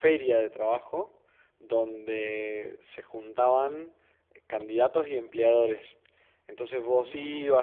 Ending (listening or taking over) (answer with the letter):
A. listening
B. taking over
A